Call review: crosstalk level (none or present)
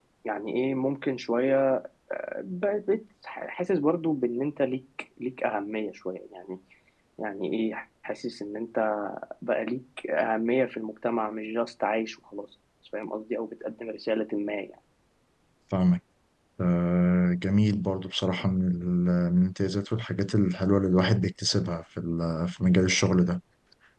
none